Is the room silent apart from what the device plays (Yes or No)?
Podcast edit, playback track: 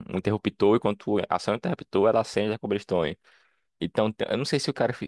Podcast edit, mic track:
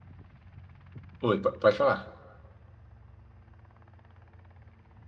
No